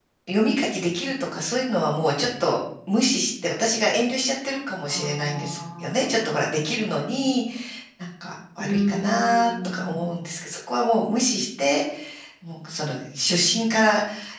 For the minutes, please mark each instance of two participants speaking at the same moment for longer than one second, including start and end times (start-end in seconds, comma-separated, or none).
4.9-6.6, 8.6-10.1